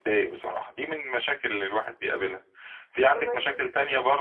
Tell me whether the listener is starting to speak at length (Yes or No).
No